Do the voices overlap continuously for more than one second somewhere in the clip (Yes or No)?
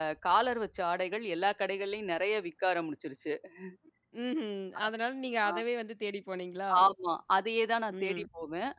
No